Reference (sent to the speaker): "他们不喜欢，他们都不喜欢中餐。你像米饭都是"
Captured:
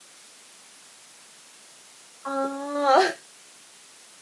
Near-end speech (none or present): present